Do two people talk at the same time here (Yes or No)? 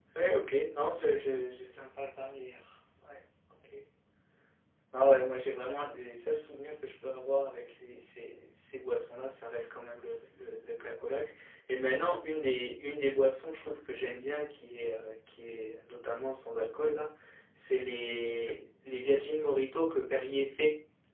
No